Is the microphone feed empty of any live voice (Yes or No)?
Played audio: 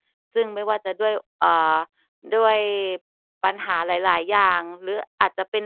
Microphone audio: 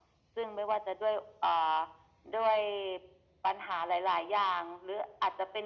Yes